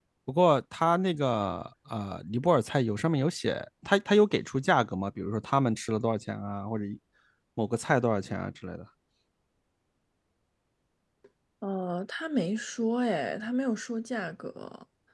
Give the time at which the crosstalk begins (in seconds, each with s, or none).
none